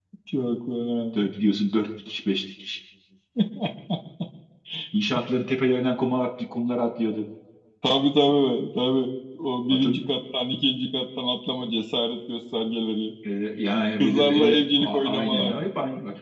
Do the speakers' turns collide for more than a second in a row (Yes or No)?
Yes